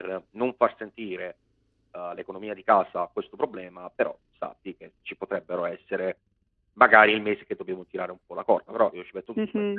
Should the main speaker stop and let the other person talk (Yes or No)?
Yes